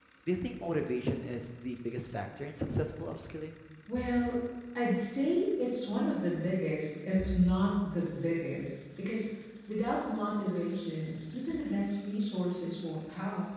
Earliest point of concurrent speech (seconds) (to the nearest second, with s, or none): none